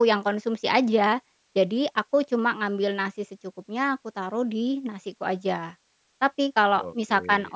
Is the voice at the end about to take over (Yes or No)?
No